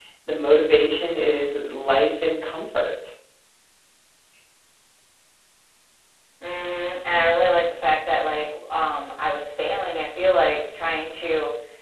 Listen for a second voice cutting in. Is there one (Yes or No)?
No